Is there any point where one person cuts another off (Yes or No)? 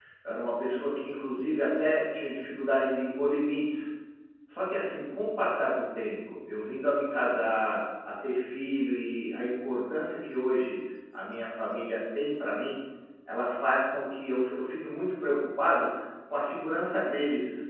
No